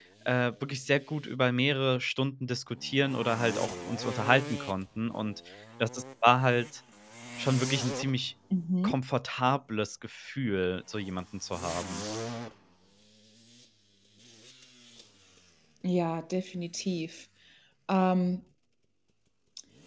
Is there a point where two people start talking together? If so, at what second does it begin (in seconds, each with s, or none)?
none